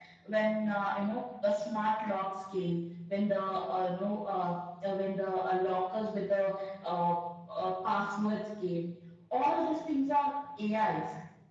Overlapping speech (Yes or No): No